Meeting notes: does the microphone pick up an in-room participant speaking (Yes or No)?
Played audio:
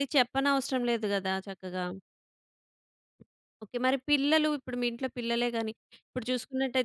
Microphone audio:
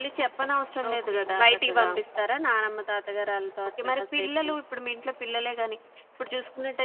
Yes